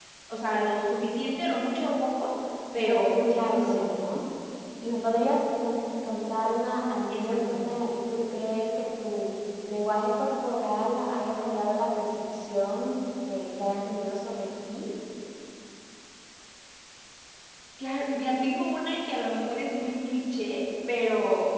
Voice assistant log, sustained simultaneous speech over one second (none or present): present